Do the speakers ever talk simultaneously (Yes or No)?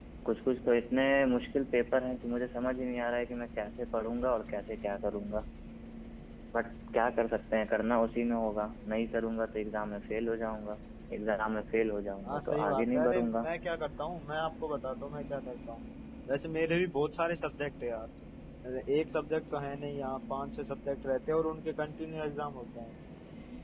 Yes